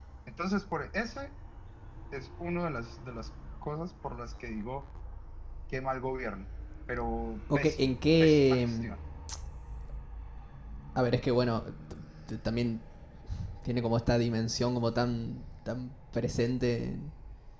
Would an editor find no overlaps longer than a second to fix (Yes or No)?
No